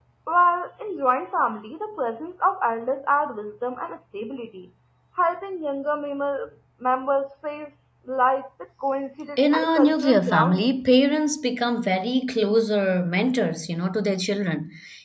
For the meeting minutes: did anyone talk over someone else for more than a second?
Yes, from 9.4 s

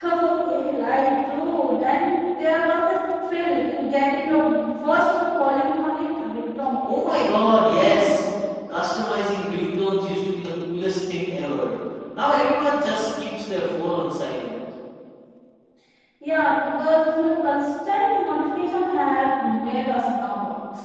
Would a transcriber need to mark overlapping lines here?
No

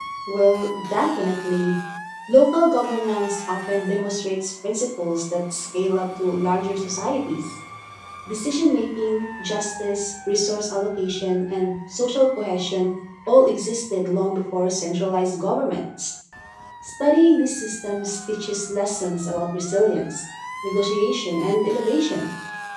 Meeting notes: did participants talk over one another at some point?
No

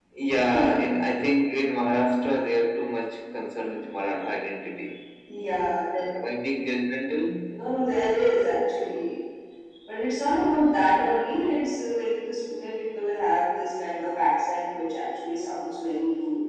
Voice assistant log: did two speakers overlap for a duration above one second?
No

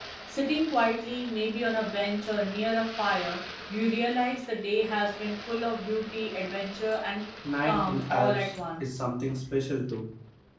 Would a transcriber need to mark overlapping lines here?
Yes, from 7.4 s

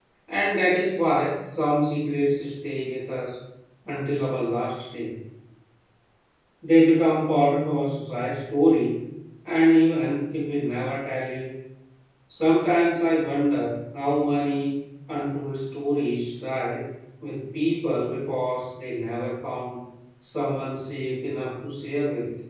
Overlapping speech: No

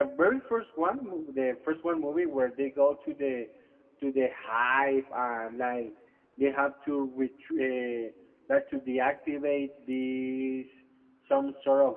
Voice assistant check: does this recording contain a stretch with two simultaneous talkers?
No

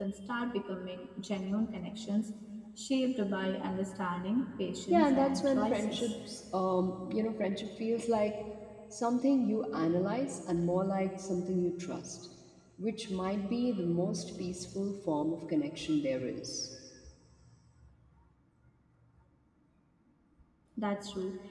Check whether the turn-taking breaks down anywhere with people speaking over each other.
Yes, from 4.9 s

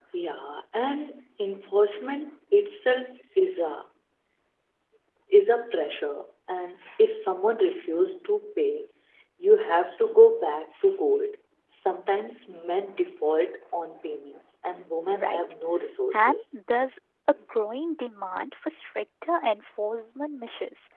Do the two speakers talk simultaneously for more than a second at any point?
No

